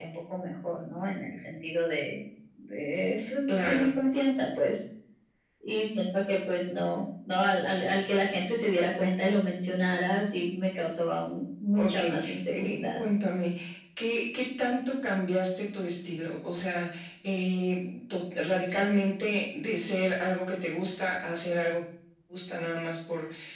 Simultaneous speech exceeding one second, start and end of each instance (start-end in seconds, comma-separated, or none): 11.8-13.0